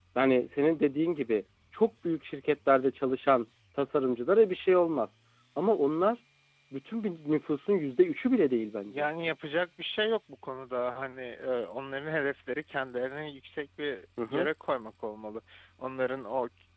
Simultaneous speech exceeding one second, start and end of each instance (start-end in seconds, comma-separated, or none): none